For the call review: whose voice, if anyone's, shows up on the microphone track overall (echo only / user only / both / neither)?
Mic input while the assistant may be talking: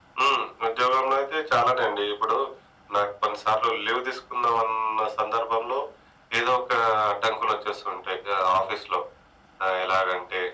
echo only